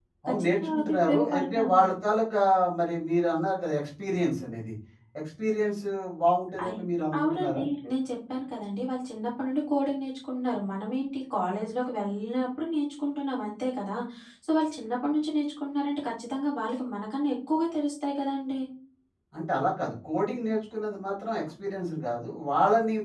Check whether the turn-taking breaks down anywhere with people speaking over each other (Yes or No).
Yes